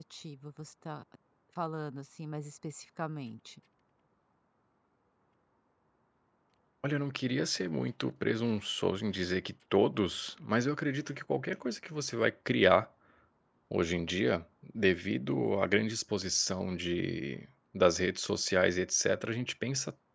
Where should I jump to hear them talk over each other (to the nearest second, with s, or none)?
none